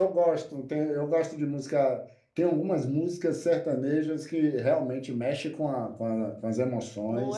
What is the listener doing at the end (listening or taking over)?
taking over